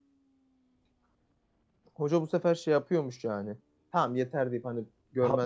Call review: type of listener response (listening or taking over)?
taking over